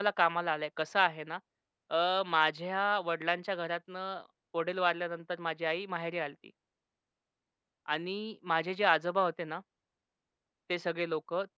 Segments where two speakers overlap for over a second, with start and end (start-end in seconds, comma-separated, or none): none